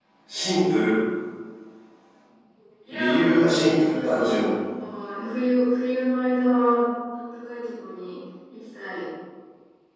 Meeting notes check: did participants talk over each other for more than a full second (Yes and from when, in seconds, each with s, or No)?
Yes, from 2.9 s